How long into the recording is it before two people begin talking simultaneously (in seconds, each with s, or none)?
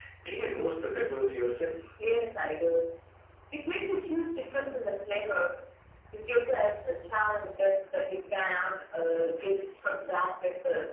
none